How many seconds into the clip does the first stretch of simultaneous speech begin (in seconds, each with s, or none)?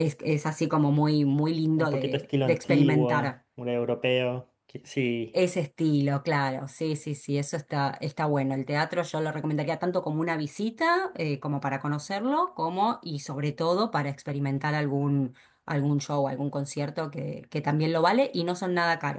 1.8 s